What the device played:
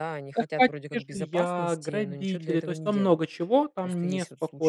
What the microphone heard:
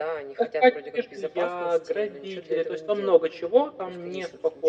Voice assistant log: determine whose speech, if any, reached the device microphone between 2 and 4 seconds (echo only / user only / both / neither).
echo only